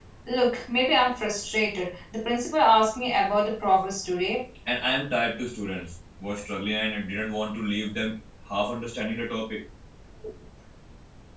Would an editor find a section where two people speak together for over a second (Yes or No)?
No